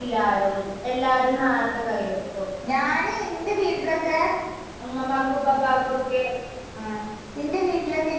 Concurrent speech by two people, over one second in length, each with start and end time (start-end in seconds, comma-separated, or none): none